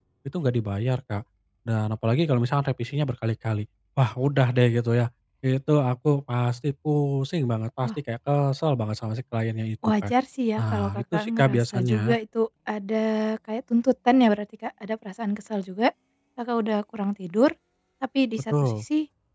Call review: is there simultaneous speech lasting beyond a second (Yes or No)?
Yes